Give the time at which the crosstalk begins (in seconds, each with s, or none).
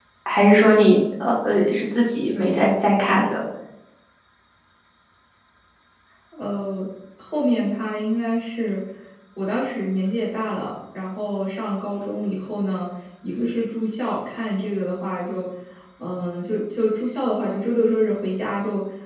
none